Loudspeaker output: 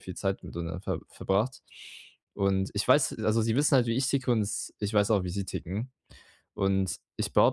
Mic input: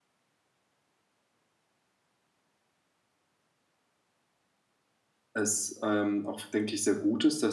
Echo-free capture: Yes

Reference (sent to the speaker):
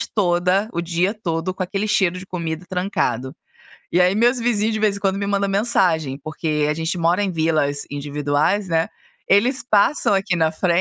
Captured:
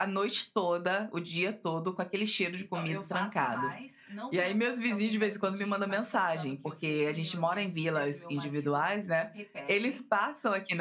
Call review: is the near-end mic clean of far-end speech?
No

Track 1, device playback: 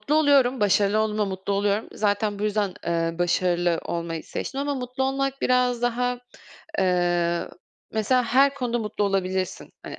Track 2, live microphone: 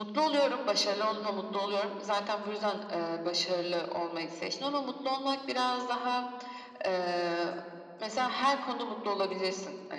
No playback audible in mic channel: No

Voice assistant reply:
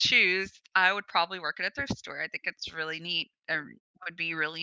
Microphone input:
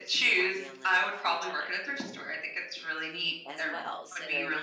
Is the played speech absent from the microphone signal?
No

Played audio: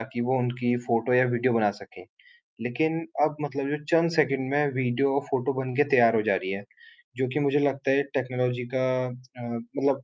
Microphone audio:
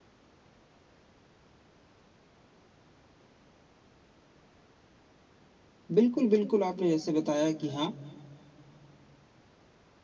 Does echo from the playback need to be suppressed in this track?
No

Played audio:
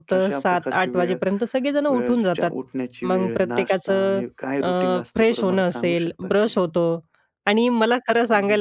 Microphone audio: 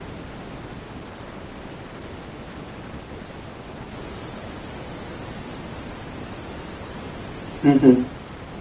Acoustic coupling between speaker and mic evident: No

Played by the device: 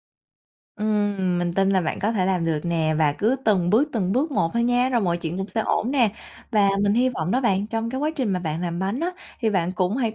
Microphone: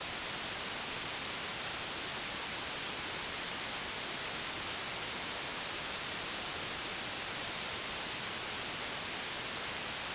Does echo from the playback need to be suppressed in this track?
No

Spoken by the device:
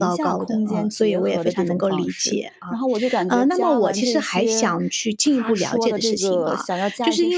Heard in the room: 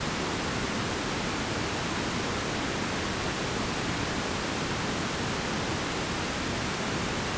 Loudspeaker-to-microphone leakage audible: No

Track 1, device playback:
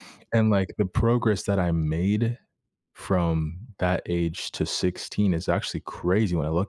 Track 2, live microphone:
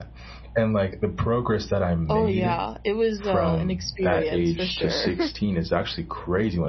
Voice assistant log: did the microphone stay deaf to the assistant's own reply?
No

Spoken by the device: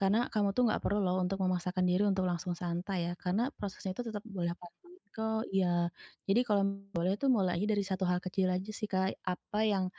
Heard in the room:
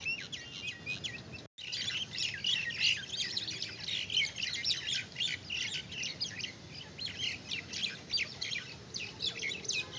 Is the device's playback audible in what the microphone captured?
No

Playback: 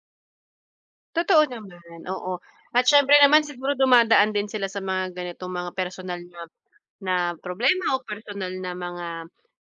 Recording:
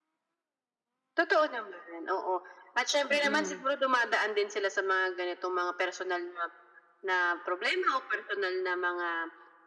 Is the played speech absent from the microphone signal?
No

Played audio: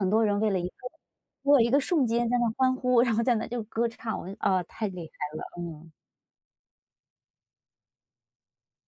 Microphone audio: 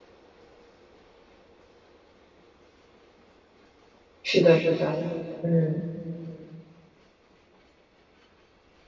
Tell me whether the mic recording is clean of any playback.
Yes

